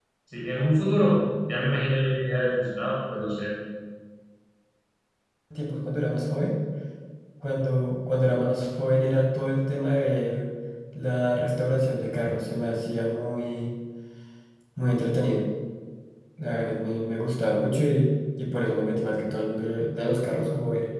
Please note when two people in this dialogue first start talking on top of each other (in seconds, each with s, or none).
none